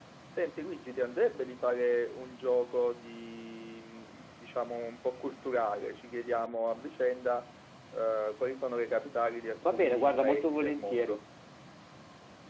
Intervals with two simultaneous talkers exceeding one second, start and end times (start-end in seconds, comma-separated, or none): 9.6-11.2